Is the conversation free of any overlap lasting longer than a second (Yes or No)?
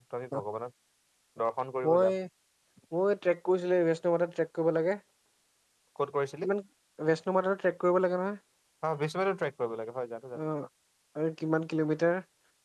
Yes